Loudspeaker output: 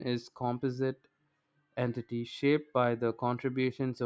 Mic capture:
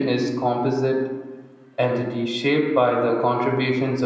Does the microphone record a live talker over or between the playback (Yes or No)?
No